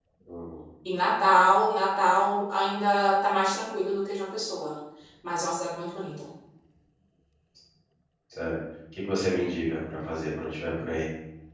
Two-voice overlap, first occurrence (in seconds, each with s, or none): none